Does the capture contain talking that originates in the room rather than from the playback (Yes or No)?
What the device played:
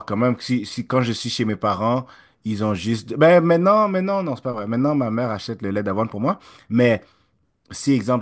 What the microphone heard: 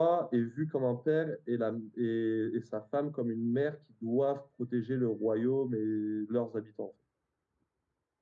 Yes